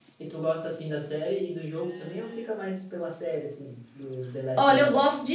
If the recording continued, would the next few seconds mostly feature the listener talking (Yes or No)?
Yes